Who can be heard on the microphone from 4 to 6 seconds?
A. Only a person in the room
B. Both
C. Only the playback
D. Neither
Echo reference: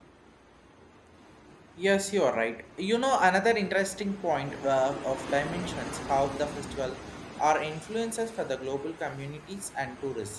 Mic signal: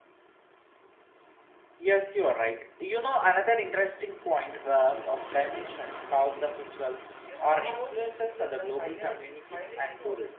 C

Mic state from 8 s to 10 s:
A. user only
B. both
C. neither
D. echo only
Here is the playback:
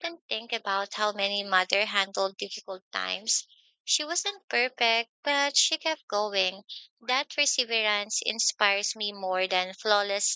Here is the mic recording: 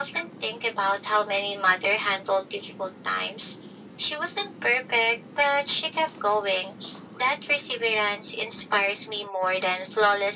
D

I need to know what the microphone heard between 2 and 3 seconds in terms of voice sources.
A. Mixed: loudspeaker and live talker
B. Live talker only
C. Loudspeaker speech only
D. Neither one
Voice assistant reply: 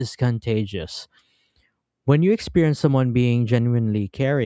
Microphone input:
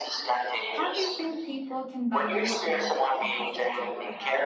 A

